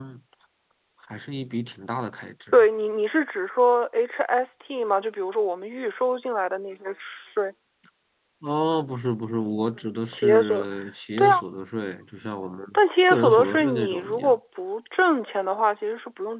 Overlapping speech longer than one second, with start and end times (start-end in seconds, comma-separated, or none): 13.1-14.4